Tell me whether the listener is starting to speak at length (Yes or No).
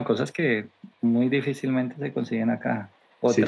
No